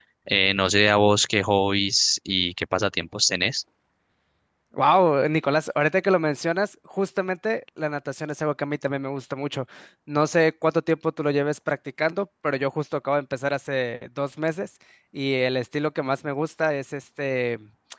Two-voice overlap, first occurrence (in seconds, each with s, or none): none